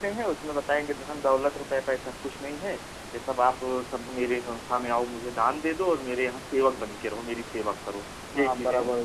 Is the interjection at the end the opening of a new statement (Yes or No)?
Yes